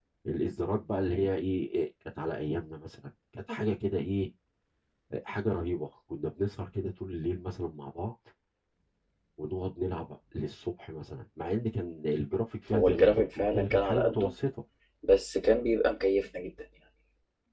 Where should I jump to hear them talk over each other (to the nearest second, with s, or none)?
13 s